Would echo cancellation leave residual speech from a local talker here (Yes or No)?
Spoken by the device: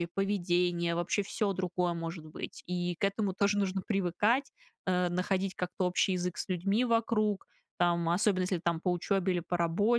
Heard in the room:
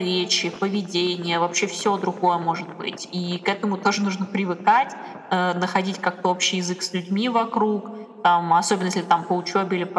No